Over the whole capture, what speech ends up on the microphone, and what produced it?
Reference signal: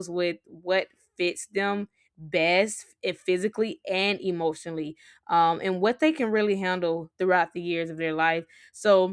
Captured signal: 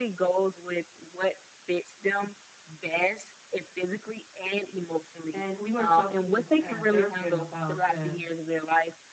both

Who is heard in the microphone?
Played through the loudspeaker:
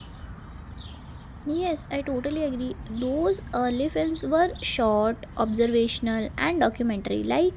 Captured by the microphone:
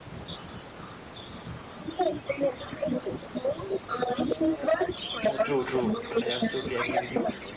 both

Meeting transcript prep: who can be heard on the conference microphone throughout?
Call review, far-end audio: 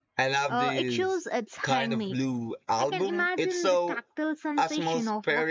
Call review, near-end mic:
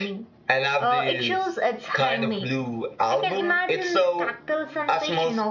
echo only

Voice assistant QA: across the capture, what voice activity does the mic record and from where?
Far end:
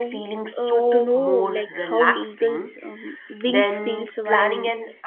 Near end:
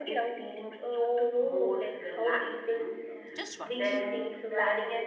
both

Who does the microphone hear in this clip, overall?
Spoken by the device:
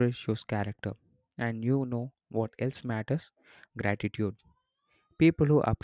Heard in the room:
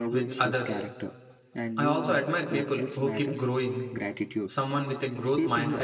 both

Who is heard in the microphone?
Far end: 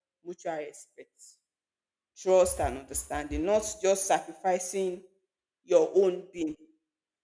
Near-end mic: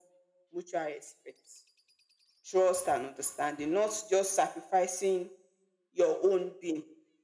echo only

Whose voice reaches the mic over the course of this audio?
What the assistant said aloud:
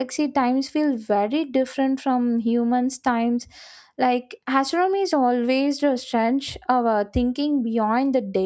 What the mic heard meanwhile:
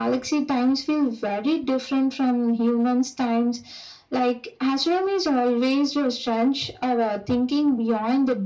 echo only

